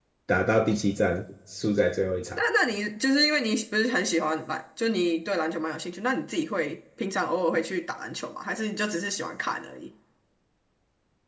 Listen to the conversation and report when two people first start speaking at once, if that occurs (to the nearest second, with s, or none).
none